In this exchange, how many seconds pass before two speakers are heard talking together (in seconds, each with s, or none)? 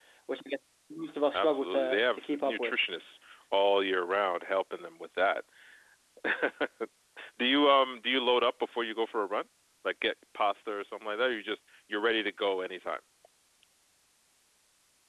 1.3 s